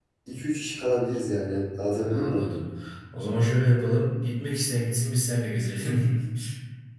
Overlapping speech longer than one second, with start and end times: none

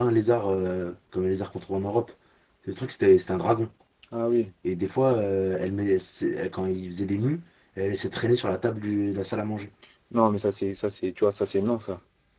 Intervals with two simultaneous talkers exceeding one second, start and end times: none

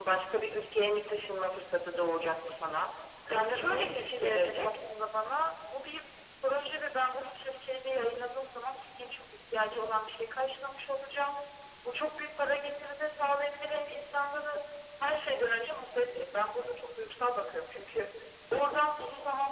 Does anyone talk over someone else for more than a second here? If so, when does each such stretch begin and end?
3.3-4.8

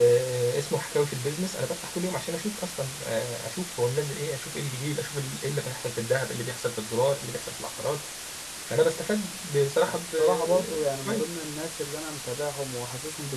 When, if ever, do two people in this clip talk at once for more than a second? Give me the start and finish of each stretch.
9.9-11.3

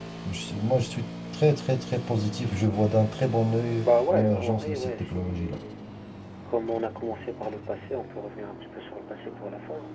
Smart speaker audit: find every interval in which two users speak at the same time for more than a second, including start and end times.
3.9-5.6

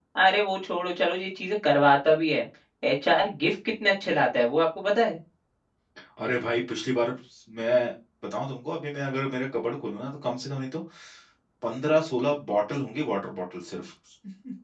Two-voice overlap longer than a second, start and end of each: none

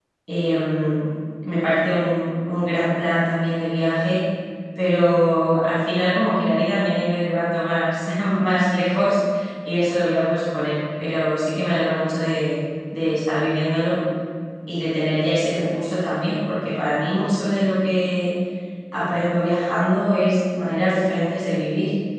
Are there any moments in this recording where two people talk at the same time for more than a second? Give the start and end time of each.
none

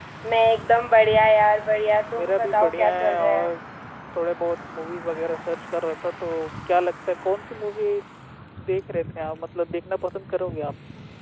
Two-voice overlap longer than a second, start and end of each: 2.2-3.5

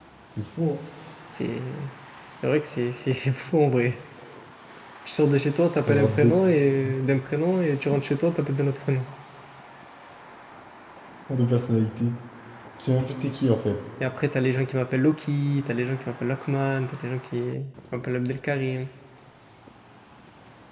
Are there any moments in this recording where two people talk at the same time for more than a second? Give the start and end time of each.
none

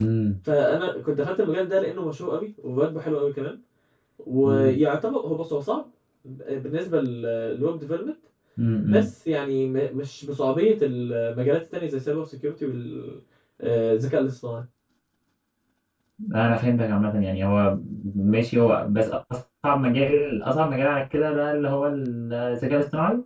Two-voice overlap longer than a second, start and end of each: none

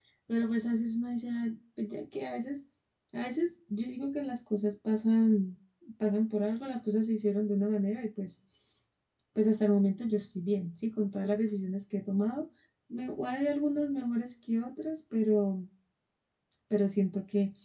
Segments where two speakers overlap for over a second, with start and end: none

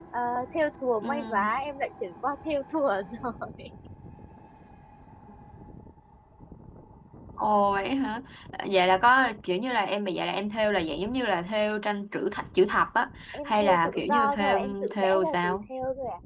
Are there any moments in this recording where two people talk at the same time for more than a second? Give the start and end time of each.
13.3-15.6

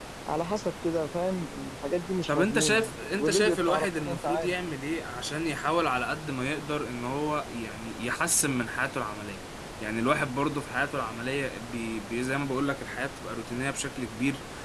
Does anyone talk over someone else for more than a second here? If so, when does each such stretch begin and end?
2.3-4.5

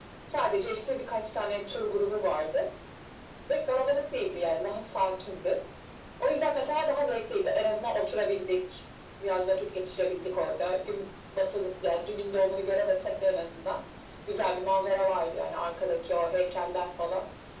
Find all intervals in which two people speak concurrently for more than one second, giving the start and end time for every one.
none

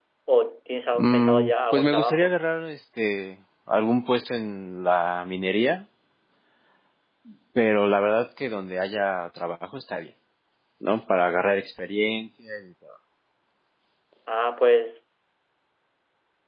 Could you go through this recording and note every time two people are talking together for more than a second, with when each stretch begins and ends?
0.9-2.4

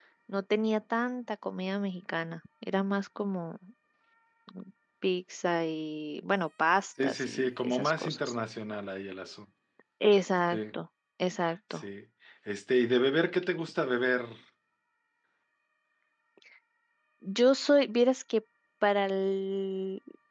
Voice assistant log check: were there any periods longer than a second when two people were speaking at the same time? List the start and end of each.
7.0-8.3

